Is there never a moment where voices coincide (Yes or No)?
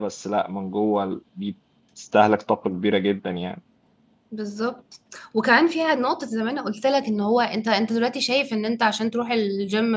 Yes